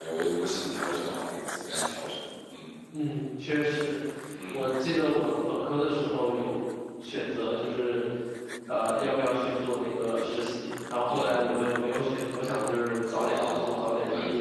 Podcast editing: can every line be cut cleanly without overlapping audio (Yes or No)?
No